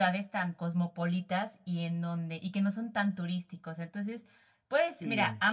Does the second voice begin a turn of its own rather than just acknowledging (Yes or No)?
No